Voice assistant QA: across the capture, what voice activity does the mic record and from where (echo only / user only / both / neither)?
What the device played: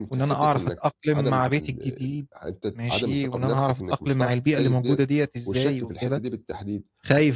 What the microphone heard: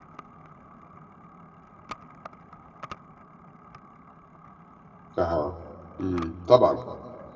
user only